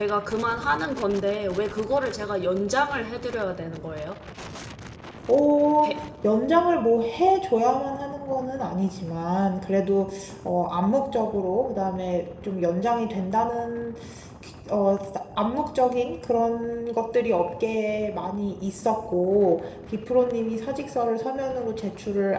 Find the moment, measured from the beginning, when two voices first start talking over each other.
none

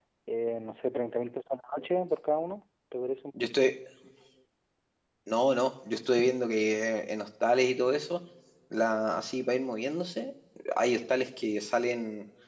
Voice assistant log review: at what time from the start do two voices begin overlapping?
none

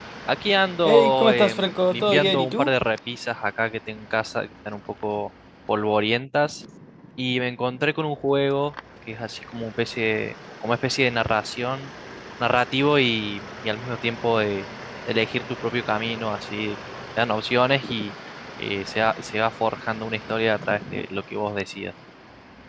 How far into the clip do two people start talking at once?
0.8 s

